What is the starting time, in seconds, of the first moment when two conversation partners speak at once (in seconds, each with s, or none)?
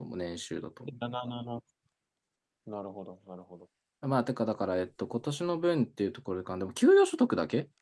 none